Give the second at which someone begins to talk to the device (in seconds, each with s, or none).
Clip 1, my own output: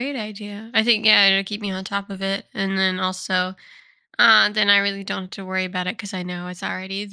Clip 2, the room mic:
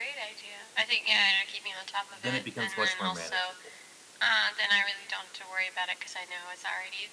2.2 s